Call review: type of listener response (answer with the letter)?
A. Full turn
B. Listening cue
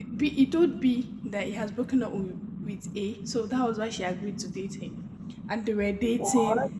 B